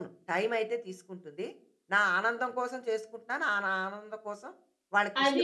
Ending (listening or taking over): taking over